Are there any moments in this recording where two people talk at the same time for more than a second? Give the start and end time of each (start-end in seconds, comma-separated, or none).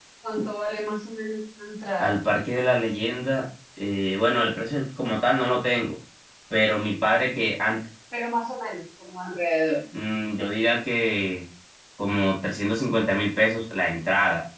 none